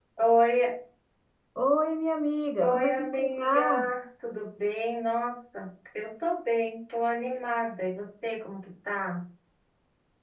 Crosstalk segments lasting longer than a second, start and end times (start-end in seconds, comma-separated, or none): 2.6-3.9